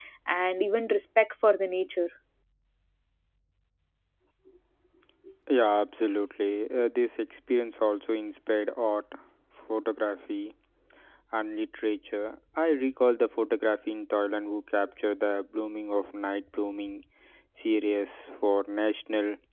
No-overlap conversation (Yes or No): Yes